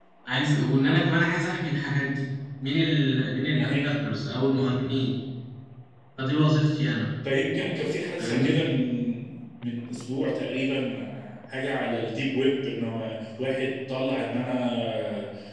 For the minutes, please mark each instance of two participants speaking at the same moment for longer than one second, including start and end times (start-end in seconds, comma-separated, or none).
none